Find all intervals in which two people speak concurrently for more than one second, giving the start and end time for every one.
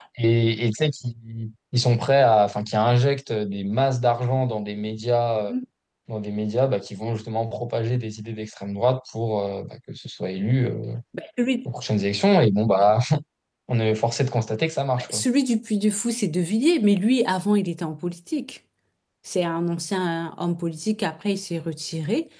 none

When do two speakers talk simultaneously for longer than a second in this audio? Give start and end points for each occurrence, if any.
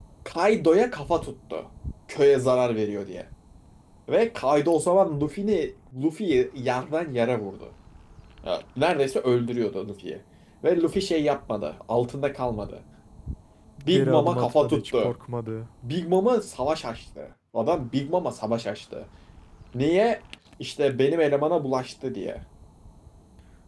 13.9-15.1

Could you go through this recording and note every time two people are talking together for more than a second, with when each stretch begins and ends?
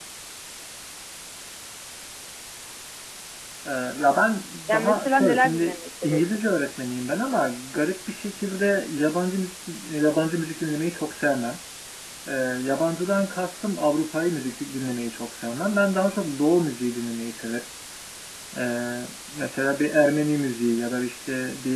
4.7-6.4

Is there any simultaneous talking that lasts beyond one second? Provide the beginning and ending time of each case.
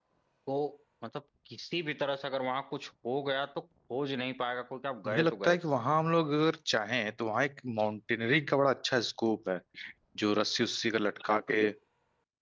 none

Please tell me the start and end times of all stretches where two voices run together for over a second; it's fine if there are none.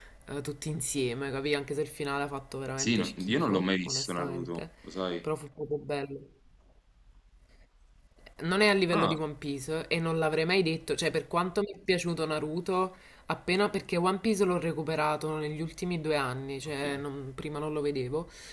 2.8-4.6

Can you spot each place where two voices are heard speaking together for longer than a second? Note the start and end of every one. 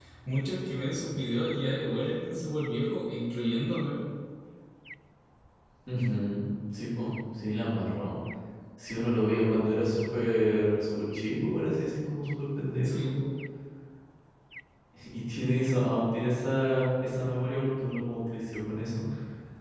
none

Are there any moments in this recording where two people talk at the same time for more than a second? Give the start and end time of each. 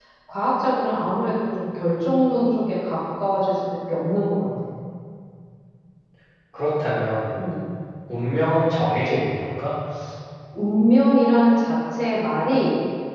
none

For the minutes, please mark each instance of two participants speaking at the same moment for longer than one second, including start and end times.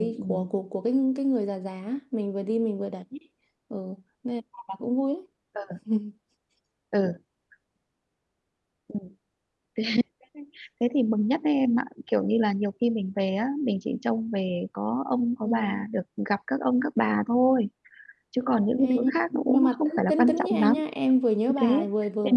18.8-20.8

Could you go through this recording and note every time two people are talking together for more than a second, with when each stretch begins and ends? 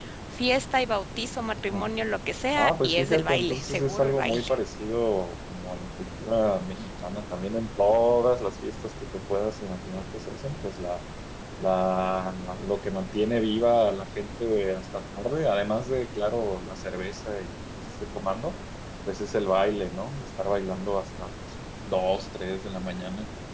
2.5-4.4

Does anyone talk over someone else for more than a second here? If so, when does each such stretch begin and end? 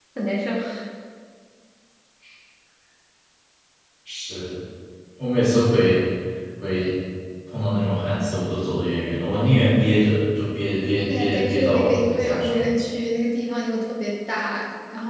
11.1-12.7

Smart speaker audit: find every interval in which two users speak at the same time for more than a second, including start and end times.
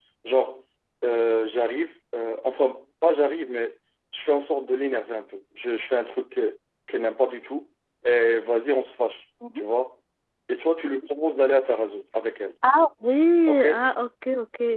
none

